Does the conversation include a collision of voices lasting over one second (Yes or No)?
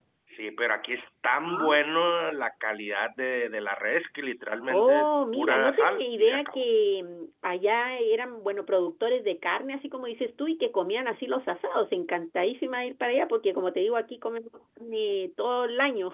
Yes